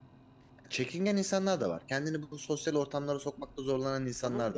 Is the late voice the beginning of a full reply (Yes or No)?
Yes